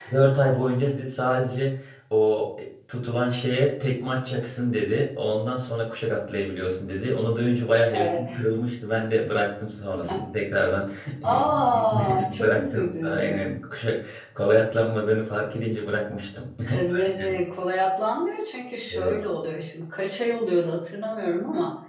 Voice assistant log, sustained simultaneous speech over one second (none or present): present